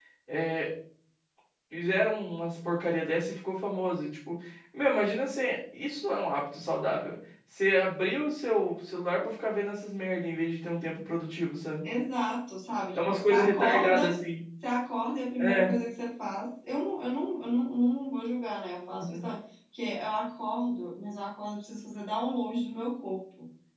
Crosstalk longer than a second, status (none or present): present